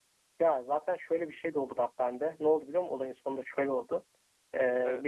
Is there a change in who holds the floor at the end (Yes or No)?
No